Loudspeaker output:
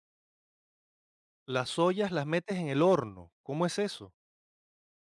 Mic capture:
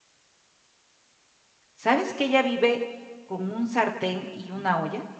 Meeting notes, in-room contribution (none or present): present